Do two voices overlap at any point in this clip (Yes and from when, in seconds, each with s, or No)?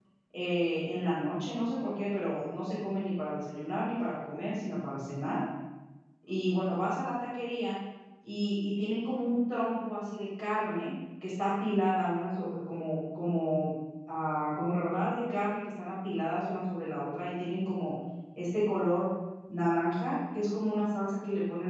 No